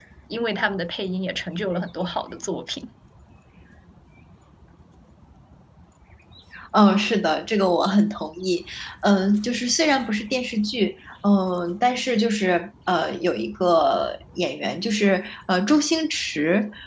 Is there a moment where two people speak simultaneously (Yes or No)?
No